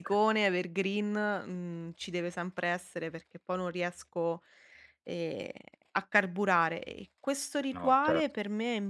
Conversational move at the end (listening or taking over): listening